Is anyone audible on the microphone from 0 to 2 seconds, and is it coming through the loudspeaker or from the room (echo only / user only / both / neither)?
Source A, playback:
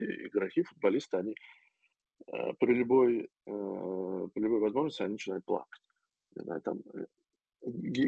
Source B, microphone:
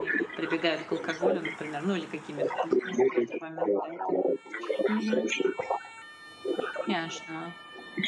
both